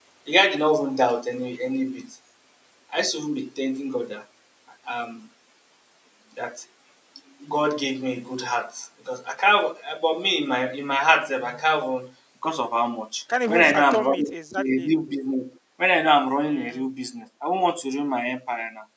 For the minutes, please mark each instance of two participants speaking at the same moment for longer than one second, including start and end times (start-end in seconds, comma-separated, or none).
13.5-14.9